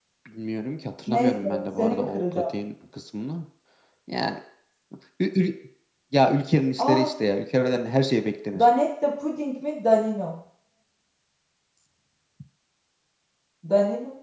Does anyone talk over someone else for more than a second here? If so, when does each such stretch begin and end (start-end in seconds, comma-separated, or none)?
1.1-2.4